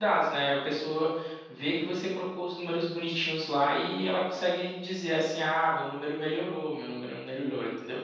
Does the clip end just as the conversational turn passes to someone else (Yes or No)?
Yes